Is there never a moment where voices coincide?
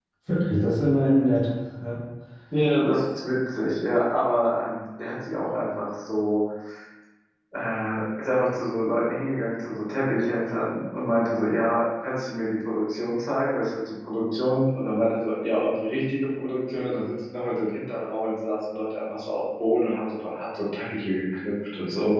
Yes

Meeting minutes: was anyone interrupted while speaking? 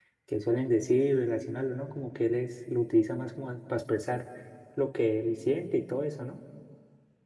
No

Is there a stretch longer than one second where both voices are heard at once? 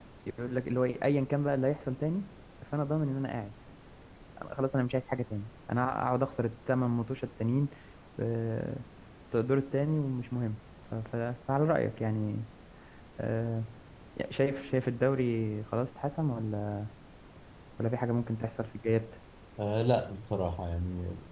No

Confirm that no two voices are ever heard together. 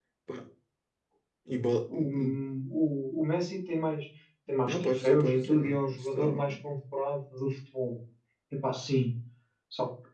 No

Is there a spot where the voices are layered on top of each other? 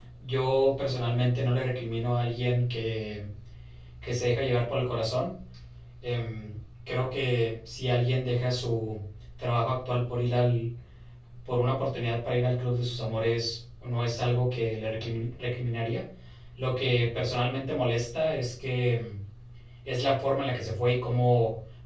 No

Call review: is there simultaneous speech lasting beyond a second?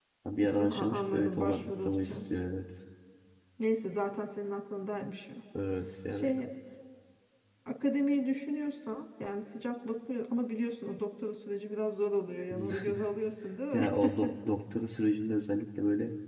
Yes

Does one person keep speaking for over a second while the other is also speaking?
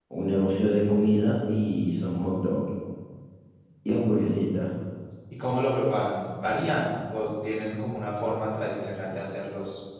No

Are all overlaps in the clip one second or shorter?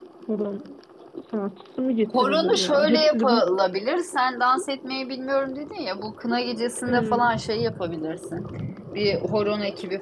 No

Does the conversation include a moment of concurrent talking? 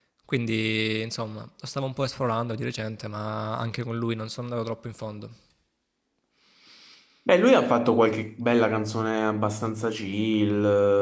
No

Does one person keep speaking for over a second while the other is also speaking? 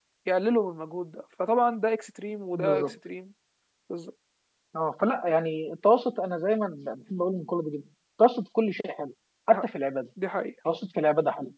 No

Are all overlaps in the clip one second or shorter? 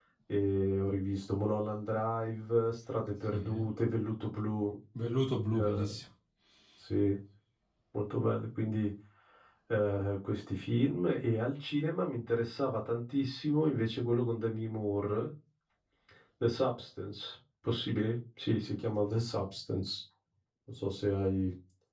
Yes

